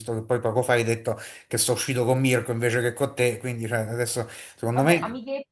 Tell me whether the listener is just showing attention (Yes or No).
No